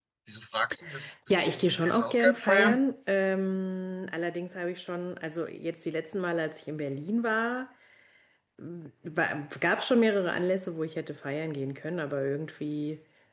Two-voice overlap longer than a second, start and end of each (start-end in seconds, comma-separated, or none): 1.3-2.8